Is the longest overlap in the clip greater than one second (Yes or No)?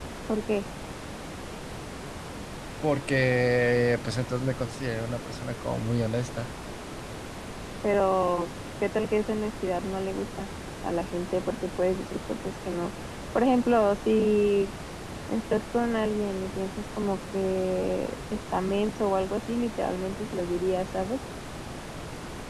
No